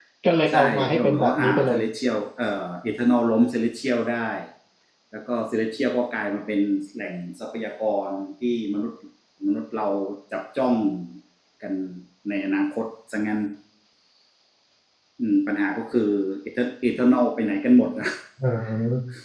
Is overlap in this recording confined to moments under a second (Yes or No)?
No